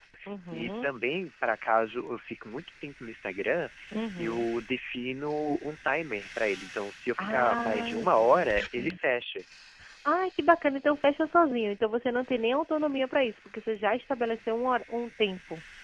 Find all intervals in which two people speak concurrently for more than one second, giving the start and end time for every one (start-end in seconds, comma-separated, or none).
7.2-9.0